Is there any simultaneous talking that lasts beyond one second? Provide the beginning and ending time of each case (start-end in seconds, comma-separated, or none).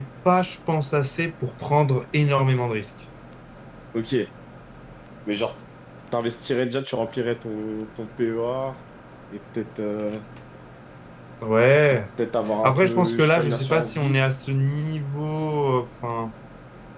12.6-14.2